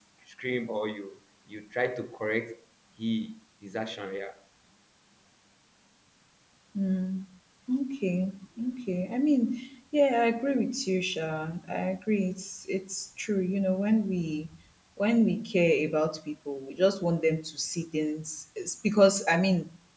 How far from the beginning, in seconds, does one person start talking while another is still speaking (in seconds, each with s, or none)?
none